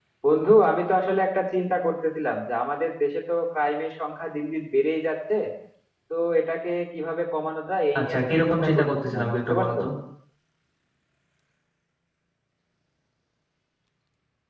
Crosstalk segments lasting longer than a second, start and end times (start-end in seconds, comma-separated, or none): 8.0-9.8